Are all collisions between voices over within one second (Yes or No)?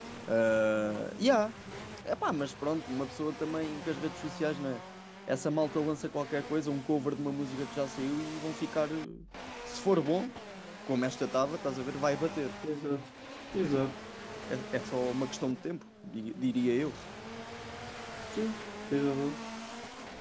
Yes